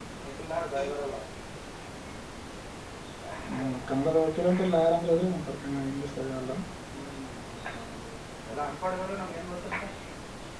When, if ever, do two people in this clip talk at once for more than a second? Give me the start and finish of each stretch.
none

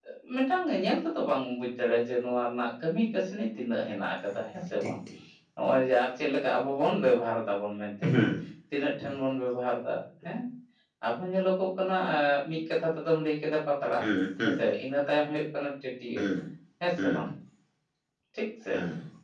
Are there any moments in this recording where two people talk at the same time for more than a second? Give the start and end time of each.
none

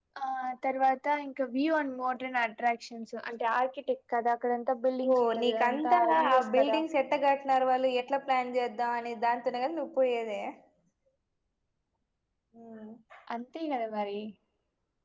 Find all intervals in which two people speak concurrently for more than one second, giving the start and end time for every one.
5.1-6.8

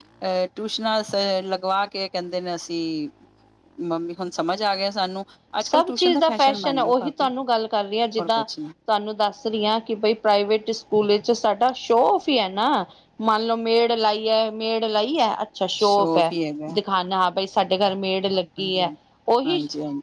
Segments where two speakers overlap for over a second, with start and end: 5.6-7.3

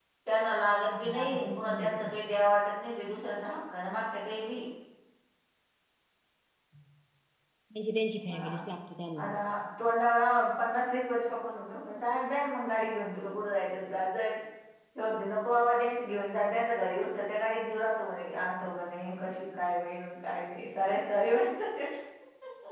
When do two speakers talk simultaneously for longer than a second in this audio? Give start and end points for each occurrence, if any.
0.7-2.2

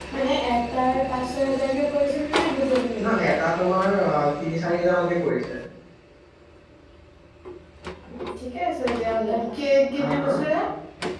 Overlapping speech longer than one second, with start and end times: none

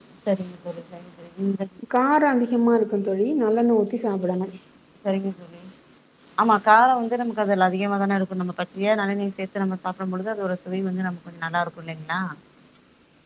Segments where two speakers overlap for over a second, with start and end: none

